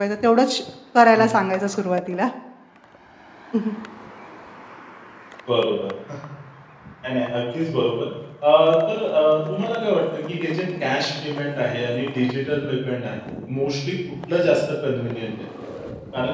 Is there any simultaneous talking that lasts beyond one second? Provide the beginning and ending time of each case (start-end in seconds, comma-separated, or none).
none